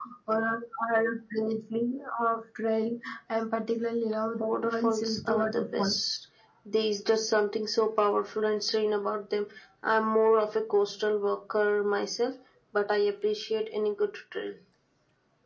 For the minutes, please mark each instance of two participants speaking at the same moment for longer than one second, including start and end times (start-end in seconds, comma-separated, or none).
4.4-5.9